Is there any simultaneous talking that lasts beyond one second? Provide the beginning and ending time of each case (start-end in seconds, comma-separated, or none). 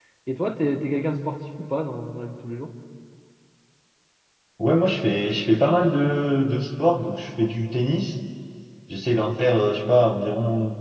none